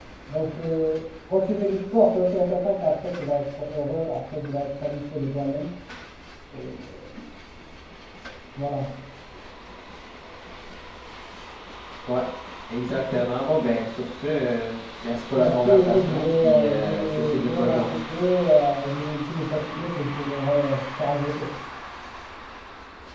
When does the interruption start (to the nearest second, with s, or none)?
15 s